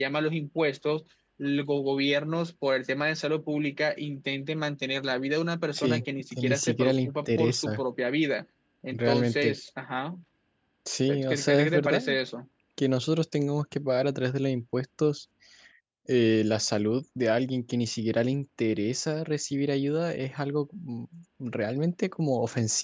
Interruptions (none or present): present